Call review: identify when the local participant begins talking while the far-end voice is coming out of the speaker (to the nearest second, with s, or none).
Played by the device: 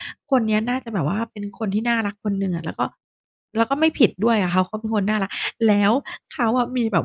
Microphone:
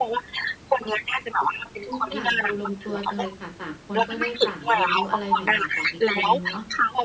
2 s